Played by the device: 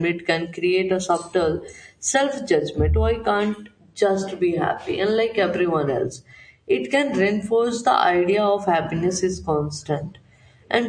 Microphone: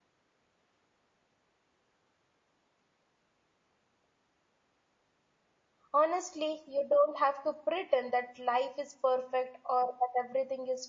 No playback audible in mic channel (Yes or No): Yes